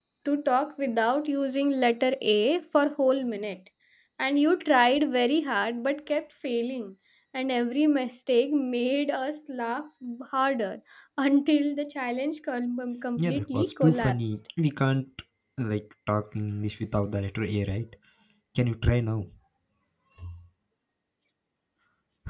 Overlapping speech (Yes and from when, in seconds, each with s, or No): Yes, from 13.2 s